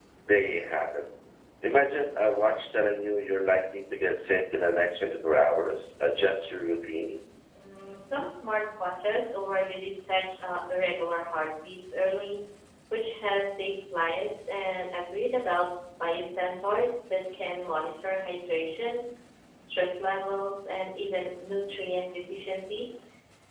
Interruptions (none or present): none